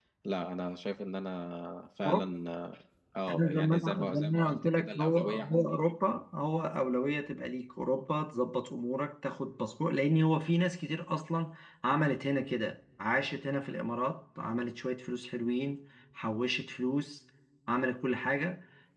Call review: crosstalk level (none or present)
present